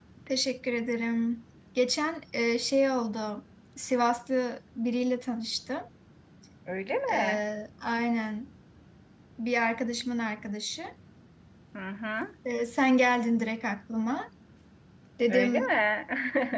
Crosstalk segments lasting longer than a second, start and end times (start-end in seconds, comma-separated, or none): none